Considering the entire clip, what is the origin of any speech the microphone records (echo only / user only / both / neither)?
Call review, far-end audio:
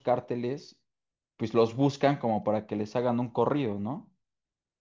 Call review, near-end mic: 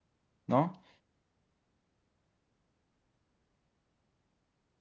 user only